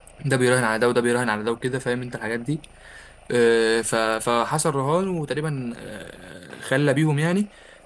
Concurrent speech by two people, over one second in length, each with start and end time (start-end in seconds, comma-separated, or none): none